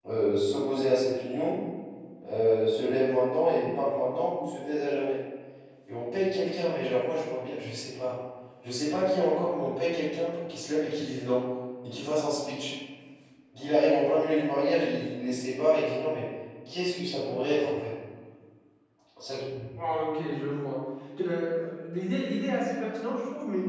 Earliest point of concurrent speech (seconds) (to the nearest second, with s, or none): none